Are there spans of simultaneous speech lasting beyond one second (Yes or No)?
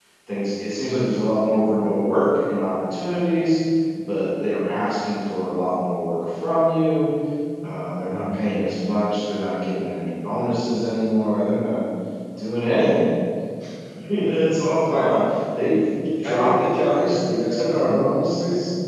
Yes